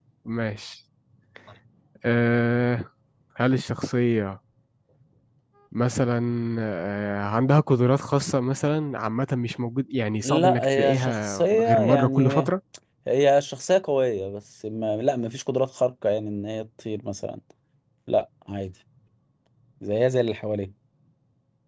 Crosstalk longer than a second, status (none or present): present